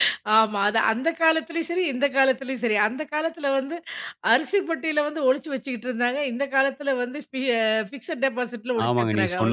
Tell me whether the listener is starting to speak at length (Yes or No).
Yes